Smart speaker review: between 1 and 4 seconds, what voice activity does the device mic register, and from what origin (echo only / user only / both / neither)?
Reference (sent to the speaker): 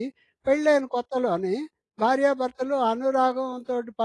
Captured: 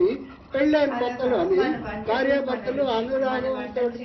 both